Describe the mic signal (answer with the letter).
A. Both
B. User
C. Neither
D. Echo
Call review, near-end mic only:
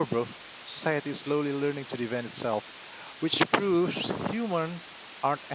B